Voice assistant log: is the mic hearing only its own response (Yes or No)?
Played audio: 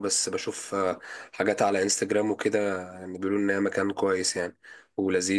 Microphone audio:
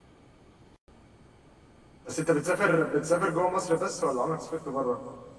No